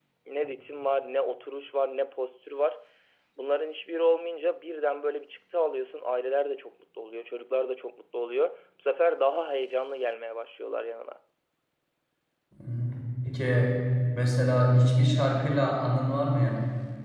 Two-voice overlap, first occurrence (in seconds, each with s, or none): none